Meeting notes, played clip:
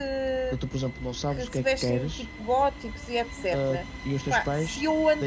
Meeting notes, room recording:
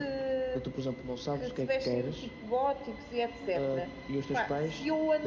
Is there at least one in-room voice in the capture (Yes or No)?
No